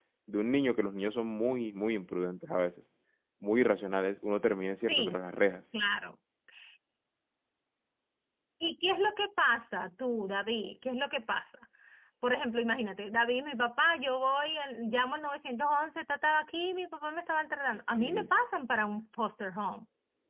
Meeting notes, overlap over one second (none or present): none